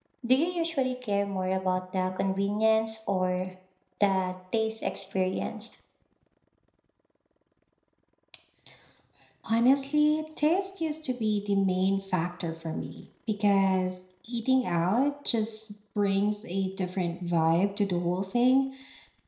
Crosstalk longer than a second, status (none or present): none